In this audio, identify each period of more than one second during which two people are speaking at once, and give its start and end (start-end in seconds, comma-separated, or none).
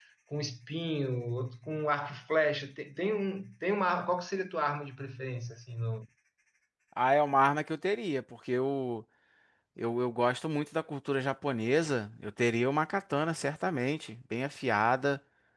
none